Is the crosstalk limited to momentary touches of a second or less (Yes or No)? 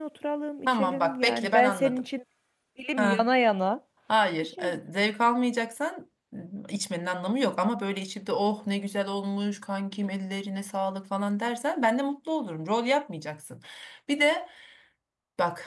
No